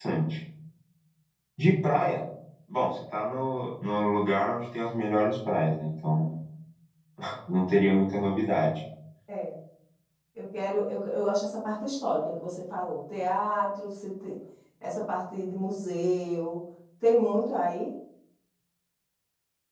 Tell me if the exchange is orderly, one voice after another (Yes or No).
Yes